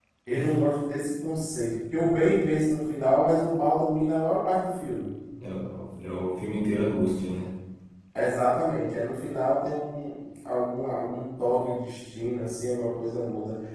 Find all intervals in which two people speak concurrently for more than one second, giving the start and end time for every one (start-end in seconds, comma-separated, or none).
none